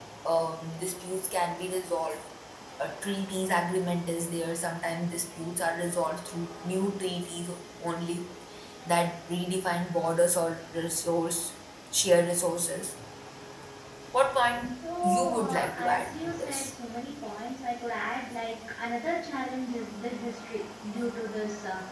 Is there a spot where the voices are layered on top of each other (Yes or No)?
Yes